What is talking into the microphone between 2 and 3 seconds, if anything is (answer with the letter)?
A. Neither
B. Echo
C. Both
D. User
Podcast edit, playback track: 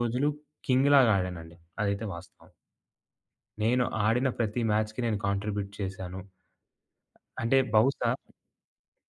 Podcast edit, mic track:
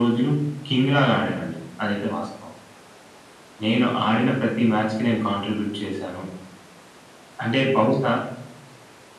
B